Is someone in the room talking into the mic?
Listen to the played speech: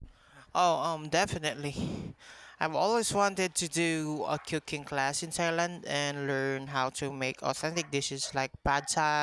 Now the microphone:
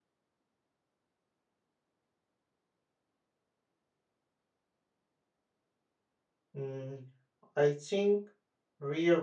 Yes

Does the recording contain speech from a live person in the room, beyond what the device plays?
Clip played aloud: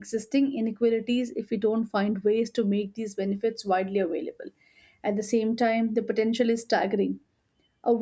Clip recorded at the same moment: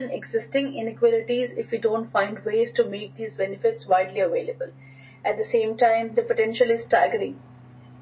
No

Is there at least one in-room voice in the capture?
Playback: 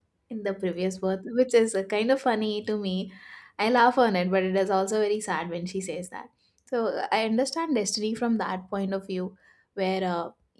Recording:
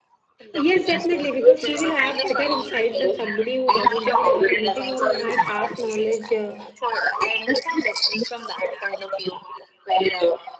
Yes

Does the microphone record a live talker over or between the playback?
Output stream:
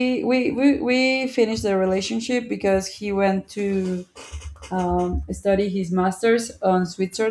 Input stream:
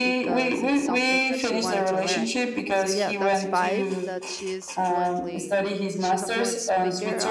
Yes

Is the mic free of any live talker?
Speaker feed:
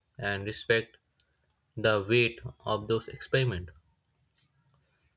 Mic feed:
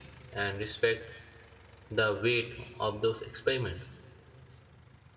Yes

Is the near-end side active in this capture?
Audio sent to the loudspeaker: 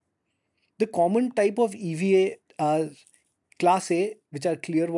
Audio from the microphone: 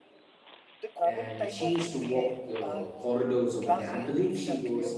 Yes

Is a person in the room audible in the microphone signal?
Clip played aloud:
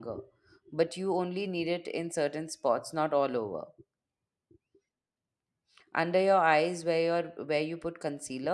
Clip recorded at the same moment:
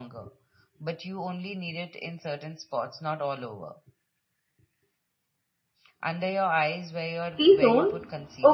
Yes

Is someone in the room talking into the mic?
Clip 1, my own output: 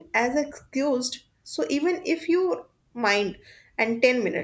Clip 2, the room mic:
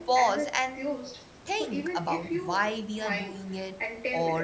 Yes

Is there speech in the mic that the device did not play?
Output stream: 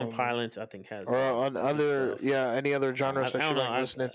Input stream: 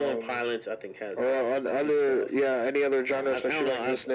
No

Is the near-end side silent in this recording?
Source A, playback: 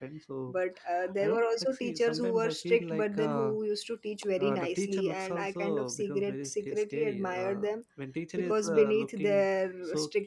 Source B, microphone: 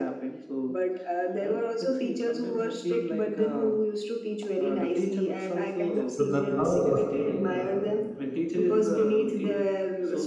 No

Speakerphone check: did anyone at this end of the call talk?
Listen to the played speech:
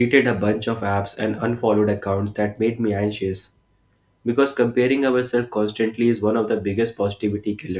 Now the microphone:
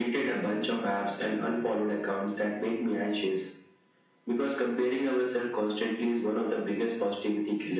No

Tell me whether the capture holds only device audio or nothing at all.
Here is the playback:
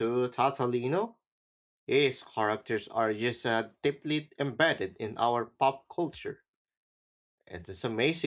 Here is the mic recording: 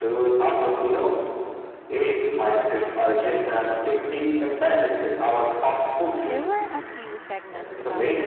No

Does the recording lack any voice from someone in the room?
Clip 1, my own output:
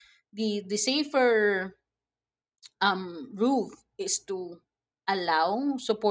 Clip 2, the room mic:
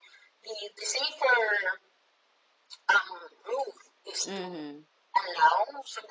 No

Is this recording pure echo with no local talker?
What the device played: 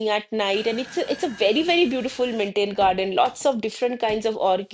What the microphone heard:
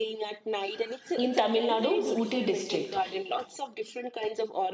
No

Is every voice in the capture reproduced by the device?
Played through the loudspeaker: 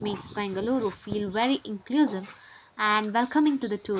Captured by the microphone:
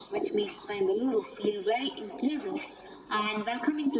Yes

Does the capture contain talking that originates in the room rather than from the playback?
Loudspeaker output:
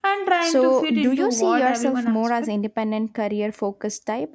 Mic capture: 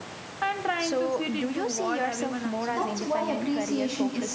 Yes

